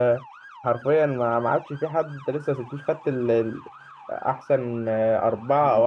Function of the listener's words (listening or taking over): taking over